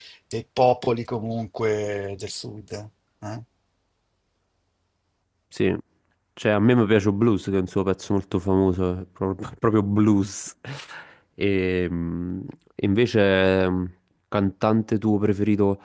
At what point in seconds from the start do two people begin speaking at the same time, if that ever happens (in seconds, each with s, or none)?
none